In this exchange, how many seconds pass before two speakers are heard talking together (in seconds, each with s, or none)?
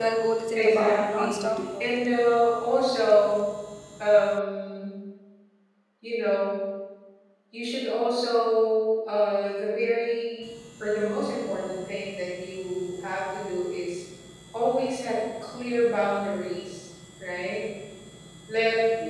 0.5 s